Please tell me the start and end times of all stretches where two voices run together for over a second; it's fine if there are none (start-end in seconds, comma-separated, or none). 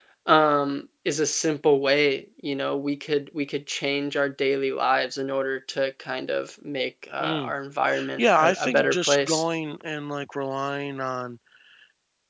8.2-9.4